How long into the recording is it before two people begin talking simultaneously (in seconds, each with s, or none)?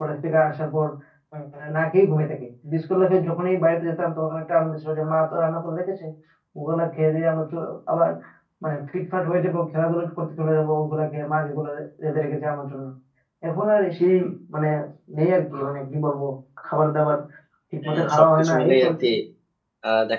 17.8 s